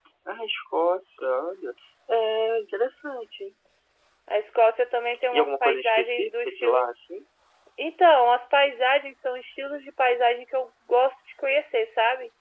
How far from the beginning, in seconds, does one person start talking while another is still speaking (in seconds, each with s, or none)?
5.3 s